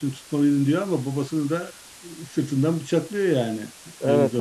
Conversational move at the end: taking over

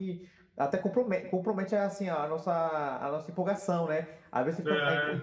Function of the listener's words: listening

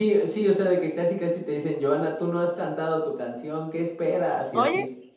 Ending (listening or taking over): taking over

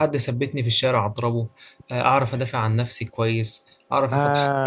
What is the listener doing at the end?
listening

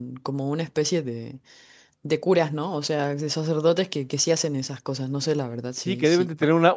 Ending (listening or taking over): taking over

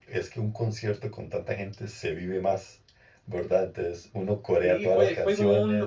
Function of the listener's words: taking over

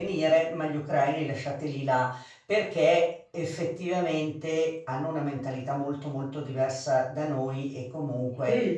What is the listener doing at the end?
listening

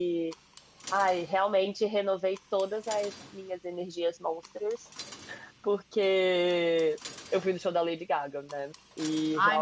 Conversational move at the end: taking over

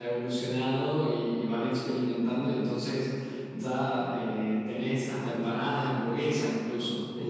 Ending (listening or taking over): listening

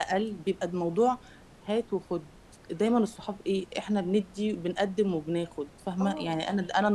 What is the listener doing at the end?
listening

